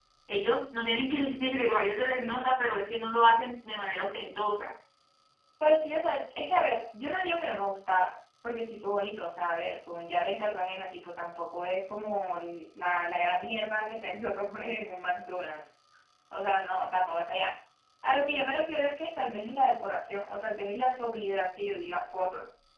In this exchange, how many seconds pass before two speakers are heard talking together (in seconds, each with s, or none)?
none